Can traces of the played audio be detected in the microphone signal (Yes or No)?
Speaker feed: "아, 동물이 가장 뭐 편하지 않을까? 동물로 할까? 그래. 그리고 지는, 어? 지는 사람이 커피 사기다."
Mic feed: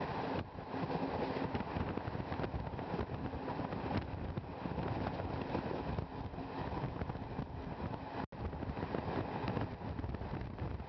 No